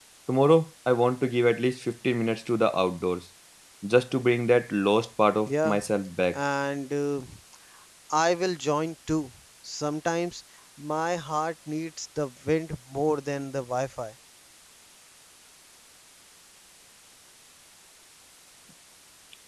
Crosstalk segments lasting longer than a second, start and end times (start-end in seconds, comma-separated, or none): none